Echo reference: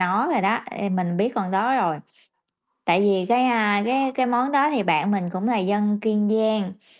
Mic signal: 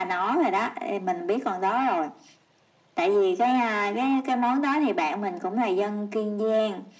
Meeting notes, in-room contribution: none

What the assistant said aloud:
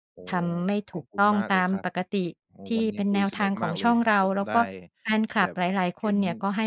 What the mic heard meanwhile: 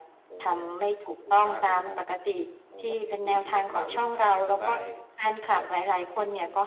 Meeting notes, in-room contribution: none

